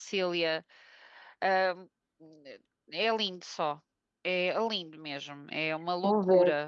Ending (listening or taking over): taking over